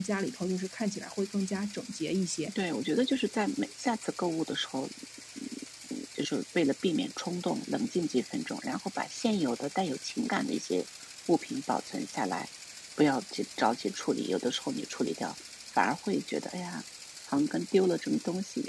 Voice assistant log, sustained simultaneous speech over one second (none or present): none